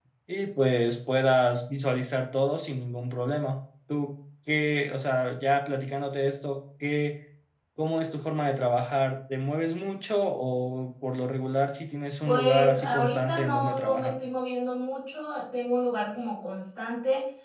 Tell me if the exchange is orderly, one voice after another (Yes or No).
No